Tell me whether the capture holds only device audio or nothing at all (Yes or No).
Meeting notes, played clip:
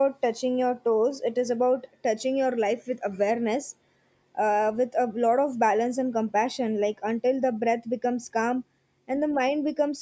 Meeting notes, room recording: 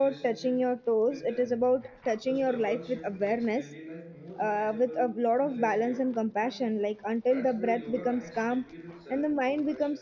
No